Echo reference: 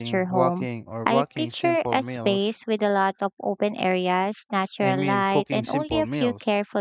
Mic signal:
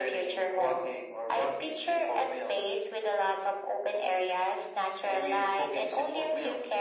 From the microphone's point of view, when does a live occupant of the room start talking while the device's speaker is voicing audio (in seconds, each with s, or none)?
none